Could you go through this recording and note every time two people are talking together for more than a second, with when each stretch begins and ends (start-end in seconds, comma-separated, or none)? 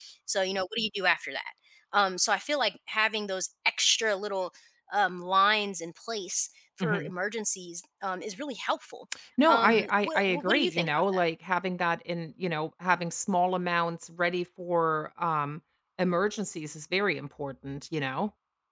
9.5-11.2